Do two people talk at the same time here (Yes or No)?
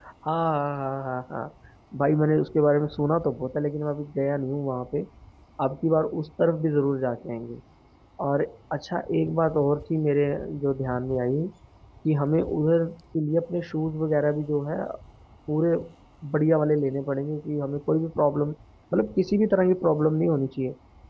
No